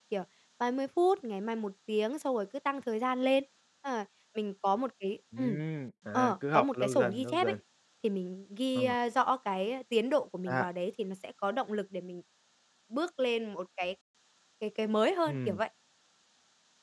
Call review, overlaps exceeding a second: present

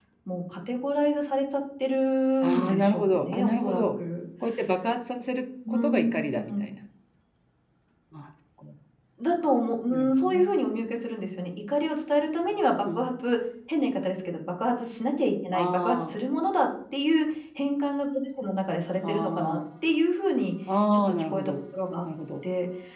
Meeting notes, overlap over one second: present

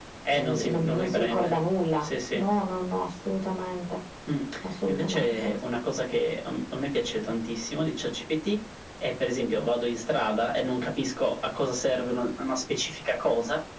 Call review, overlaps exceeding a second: present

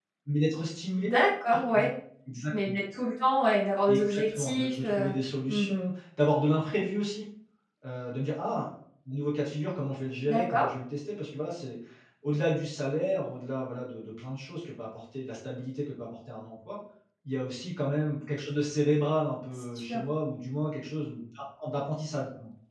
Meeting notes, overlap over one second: present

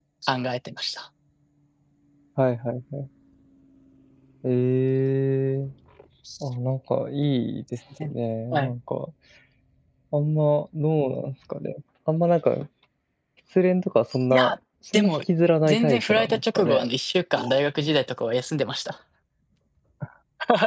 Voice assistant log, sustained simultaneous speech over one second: present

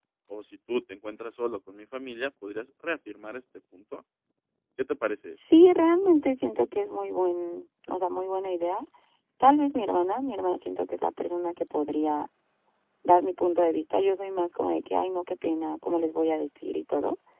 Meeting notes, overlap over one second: none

